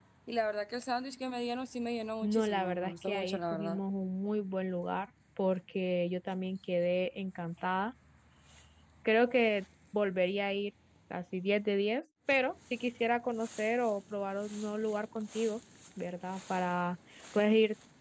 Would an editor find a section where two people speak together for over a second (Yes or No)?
Yes